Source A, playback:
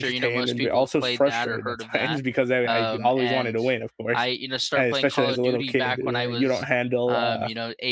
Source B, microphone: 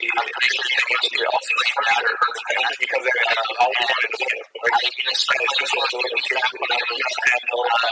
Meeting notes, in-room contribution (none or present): none